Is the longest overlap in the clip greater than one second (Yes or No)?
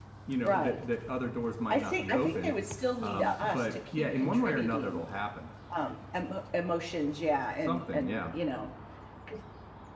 Yes